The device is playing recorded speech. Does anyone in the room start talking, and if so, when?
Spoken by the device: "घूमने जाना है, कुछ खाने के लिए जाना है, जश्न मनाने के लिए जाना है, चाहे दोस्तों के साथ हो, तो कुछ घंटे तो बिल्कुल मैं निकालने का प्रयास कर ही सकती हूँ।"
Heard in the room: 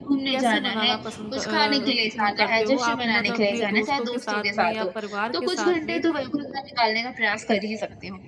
0.3 s

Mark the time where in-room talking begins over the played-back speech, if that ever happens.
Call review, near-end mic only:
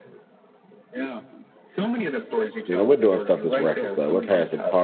2.7 s

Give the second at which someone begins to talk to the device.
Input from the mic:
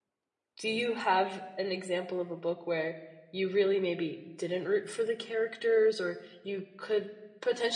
0.6 s

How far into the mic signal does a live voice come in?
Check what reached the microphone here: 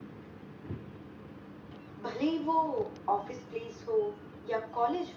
2.0 s

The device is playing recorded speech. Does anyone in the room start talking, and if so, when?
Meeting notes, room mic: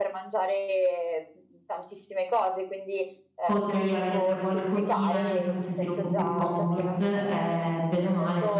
3.4 s

